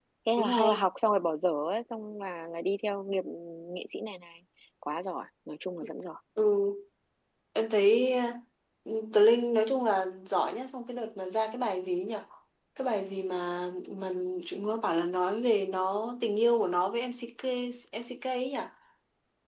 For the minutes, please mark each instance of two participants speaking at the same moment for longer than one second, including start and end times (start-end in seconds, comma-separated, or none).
none